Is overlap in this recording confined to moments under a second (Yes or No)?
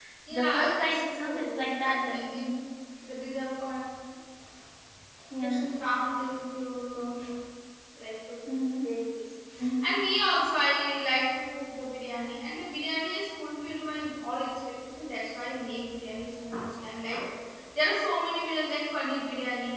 No